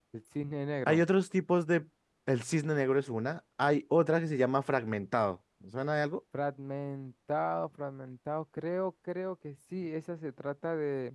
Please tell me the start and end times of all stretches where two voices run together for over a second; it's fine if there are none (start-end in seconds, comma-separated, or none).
none